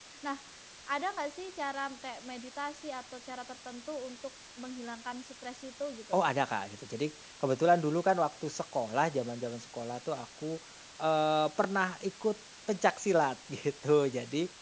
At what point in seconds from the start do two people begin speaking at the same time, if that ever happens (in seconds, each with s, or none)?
none